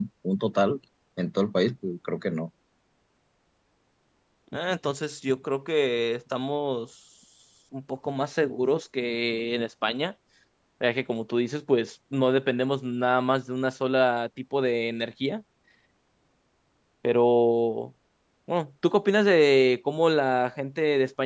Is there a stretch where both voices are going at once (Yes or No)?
No